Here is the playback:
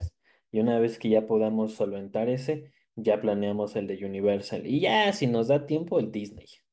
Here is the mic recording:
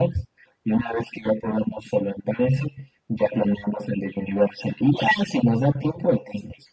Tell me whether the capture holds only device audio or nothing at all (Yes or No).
Yes